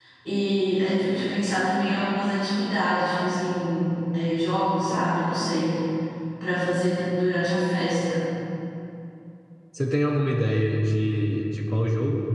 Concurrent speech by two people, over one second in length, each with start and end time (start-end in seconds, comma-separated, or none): none